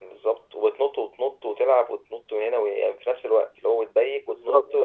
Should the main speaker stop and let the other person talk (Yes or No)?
No